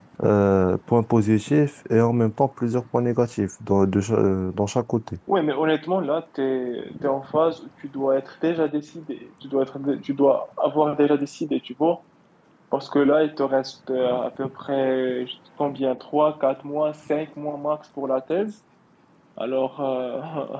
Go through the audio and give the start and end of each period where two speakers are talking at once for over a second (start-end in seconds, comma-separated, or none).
none